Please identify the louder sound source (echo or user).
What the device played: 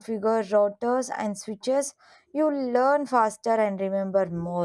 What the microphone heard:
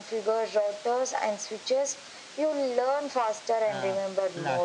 echo